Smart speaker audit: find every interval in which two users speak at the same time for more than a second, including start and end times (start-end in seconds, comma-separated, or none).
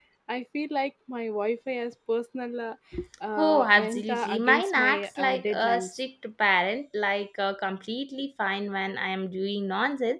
3.4-5.9